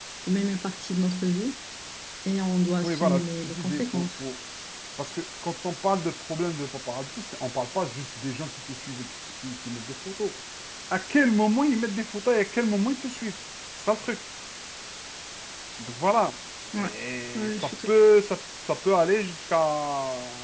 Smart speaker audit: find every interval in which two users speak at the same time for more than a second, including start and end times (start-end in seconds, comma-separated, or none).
2.8-4.2